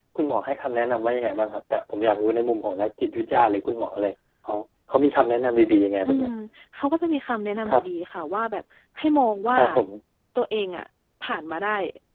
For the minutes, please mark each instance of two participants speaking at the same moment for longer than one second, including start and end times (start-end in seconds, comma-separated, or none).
none